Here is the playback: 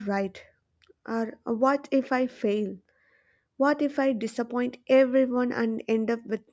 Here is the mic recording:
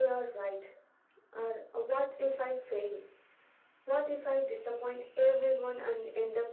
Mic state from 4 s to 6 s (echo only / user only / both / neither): echo only